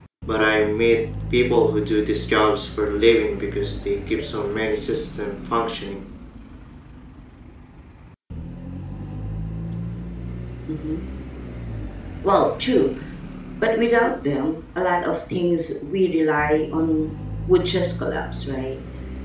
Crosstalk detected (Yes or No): No